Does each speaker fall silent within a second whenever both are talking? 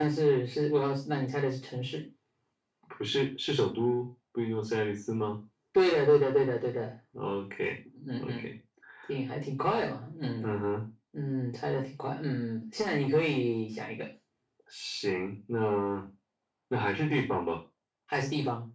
Yes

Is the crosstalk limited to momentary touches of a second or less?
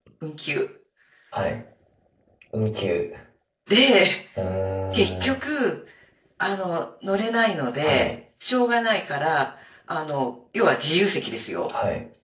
Yes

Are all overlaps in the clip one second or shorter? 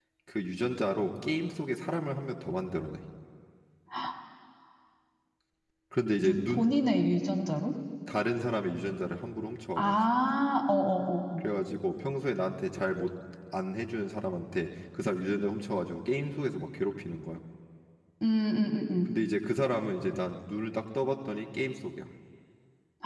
Yes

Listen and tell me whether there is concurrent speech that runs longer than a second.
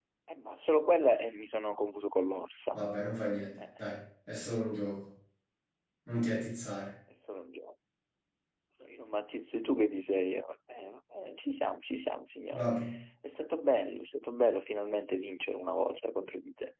No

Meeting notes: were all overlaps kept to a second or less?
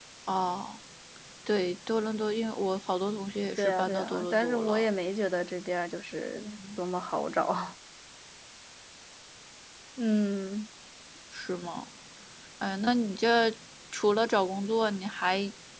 No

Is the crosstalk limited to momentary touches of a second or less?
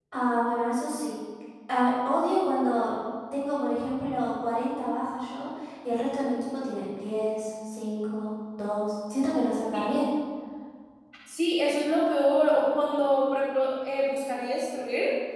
Yes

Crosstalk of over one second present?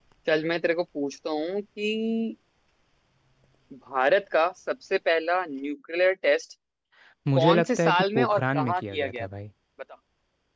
Yes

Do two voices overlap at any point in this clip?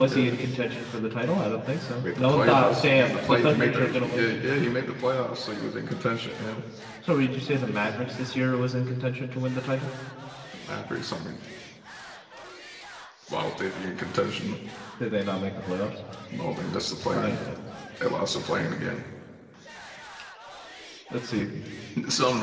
Yes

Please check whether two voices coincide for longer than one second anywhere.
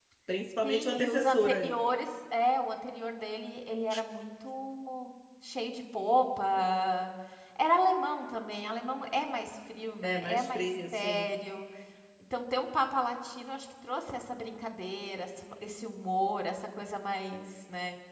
Yes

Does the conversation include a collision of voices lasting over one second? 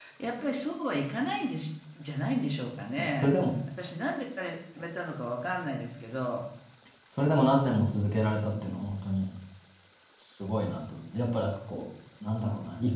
No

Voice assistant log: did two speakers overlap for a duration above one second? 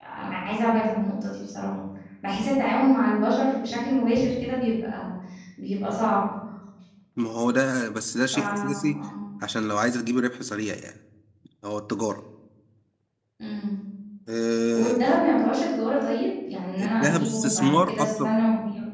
Yes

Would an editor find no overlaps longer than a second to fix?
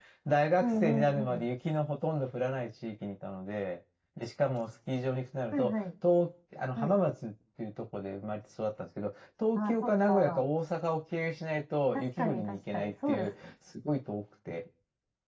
No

